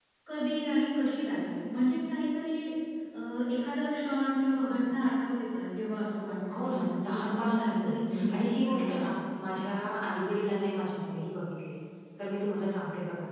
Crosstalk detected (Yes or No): Yes